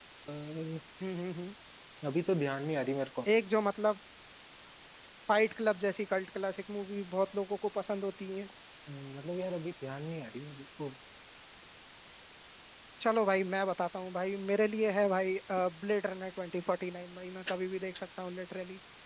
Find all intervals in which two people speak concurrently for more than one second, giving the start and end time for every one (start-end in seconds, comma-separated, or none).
none